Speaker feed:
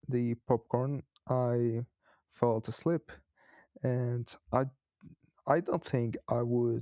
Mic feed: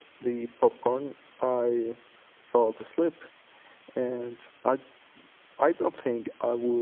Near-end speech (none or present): none